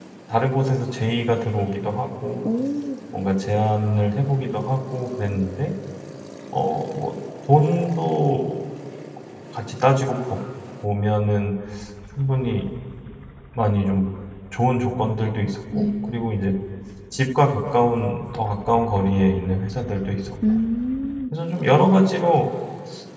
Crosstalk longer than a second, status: none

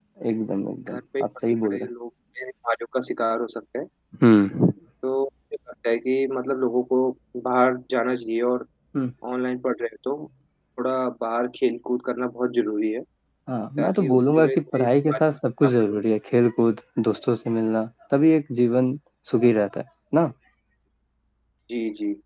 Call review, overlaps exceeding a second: present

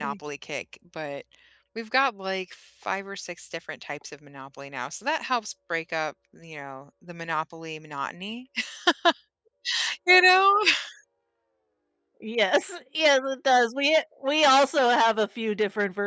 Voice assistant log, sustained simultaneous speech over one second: none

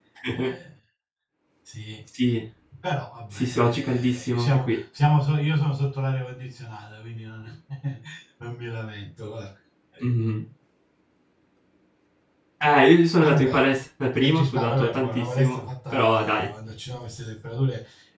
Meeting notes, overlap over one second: present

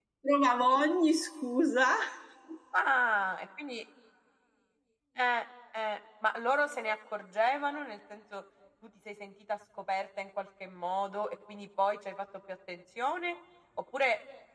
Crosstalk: none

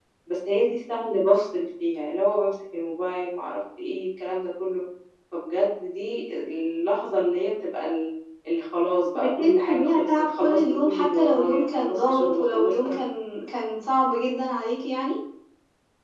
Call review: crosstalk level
present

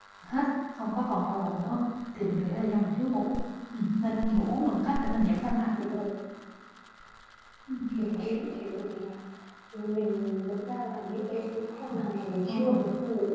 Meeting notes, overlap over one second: none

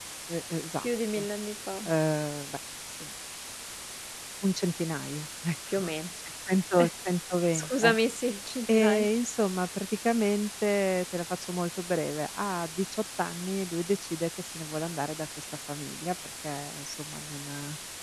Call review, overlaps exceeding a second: none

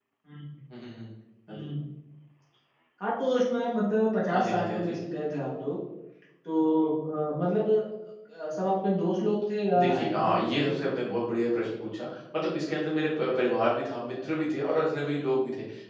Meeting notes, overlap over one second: present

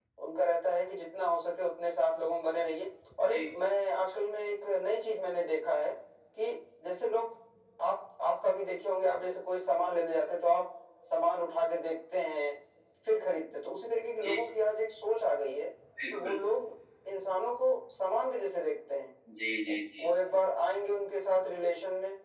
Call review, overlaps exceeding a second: none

